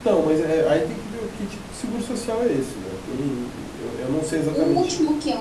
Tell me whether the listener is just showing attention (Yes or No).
No